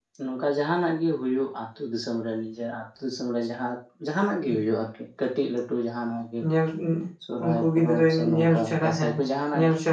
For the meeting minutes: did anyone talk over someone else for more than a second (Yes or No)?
Yes